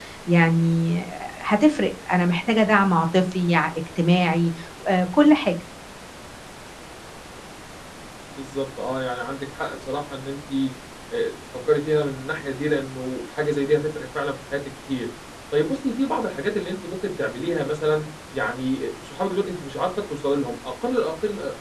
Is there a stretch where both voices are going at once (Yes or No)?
No